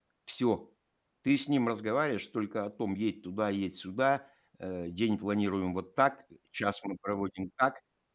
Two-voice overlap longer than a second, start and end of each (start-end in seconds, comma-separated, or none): none